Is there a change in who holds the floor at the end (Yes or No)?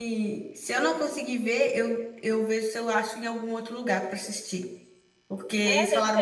Yes